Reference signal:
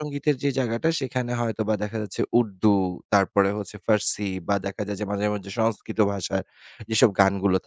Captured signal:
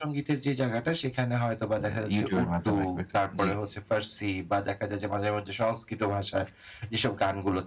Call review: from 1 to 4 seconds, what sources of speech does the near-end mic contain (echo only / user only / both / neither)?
both